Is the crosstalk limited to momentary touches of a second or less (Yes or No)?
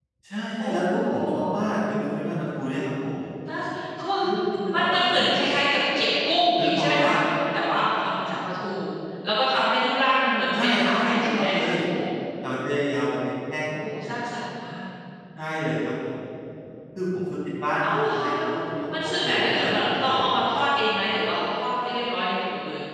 No